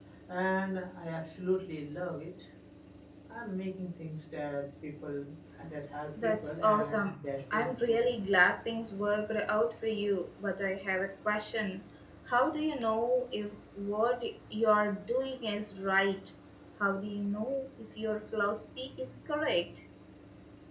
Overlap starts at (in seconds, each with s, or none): 6.2 s